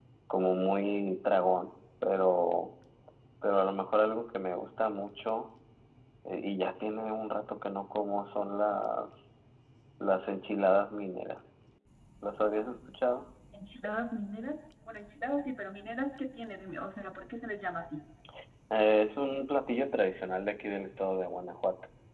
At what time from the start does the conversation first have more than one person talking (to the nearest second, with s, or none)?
none